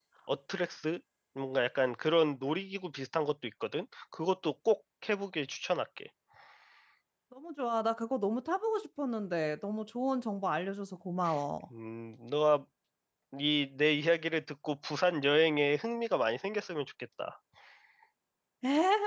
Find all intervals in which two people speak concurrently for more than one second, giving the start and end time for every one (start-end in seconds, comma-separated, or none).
none